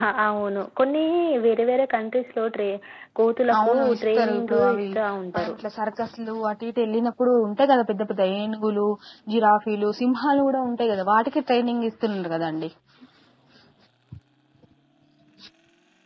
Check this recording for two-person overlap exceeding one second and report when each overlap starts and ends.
3.6-4.8

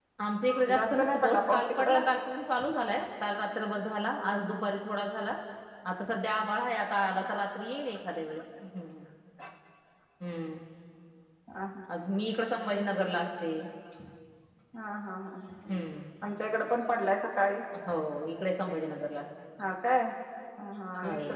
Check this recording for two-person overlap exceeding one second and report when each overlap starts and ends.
0.8-2.0

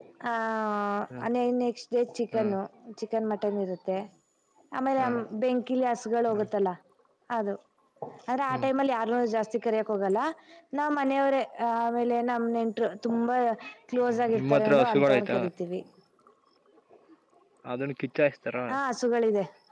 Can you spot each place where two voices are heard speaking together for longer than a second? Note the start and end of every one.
14.1-15.4

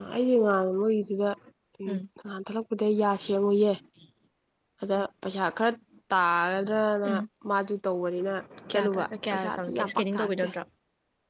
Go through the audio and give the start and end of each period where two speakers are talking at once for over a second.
8.7-10.5

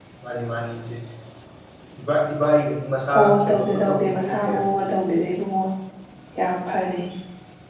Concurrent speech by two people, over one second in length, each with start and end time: 3.1-4.5

